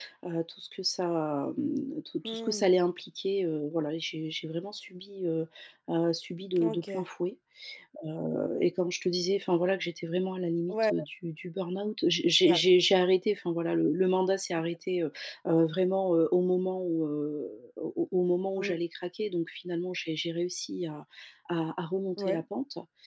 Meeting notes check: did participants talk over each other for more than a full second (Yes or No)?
No